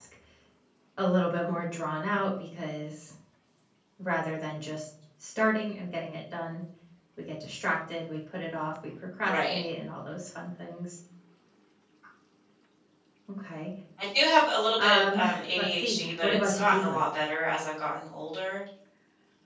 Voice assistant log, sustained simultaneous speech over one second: present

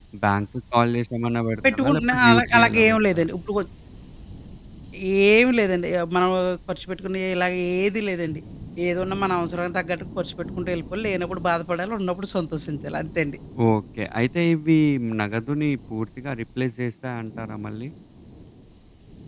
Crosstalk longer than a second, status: present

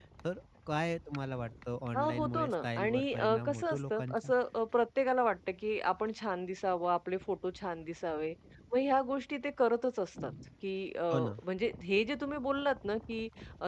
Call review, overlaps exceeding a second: present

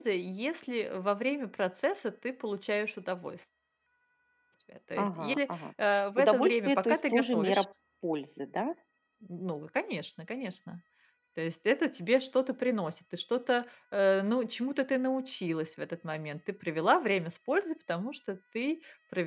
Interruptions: present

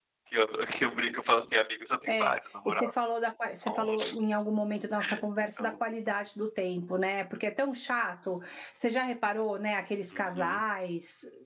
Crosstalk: present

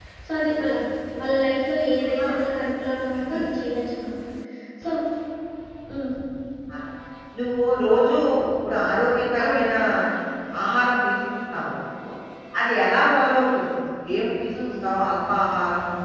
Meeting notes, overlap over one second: none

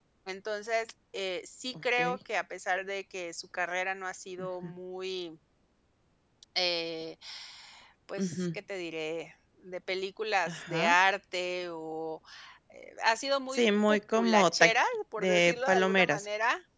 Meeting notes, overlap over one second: present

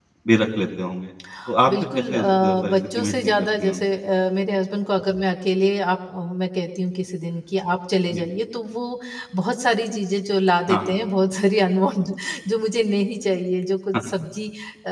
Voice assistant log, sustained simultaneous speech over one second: present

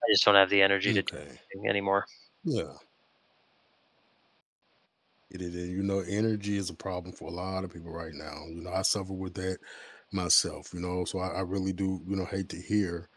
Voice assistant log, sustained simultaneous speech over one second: none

